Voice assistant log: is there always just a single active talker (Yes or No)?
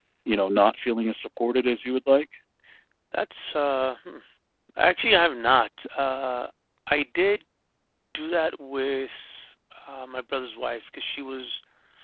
Yes